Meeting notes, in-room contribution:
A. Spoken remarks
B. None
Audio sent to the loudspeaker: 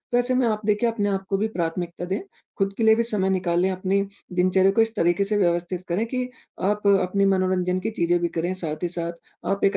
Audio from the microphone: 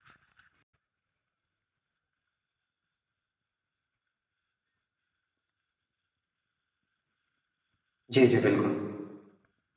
A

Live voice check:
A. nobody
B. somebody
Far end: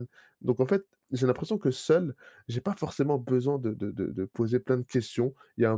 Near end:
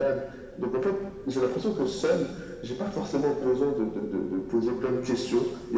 A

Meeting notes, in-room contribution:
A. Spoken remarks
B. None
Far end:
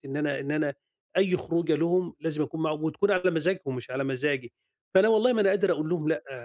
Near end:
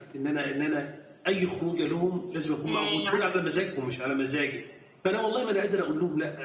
A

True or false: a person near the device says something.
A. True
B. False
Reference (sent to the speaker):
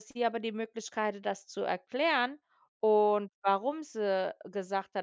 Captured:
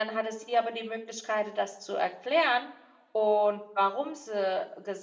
B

